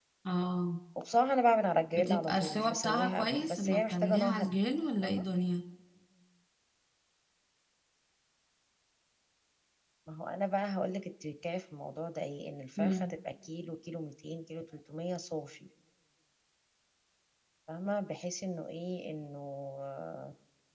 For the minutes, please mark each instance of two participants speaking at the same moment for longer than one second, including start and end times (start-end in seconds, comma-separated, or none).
1.9-4.4